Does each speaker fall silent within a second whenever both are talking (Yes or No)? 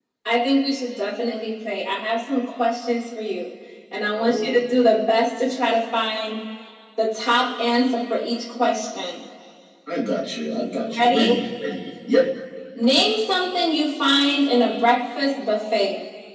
Yes